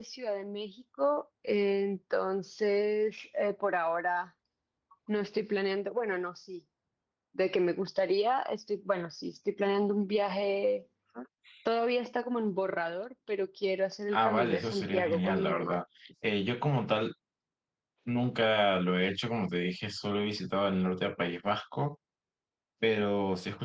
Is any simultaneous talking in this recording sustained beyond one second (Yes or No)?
Yes